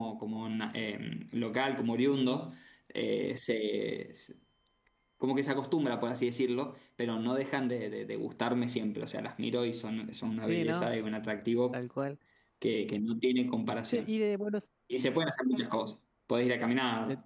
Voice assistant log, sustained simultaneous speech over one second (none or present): none